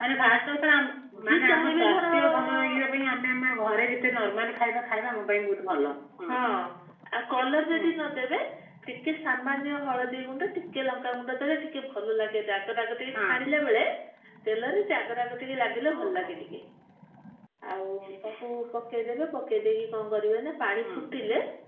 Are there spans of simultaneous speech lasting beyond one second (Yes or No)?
Yes